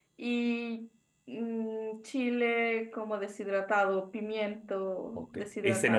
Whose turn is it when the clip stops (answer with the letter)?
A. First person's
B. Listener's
B